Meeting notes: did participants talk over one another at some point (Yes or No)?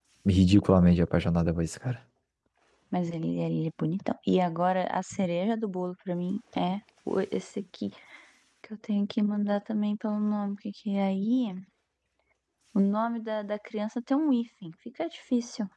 No